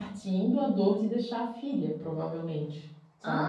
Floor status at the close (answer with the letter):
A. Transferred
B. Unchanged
A